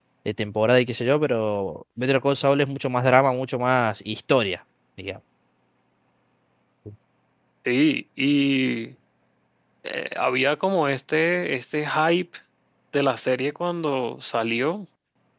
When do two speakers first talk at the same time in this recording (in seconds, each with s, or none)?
none